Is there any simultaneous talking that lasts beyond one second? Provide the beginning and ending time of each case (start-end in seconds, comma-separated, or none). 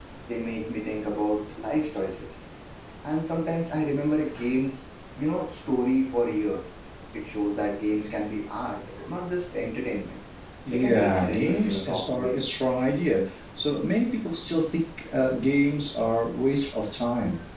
10.7-12.4